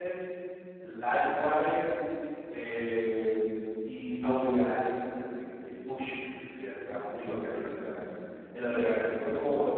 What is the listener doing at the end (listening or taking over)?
listening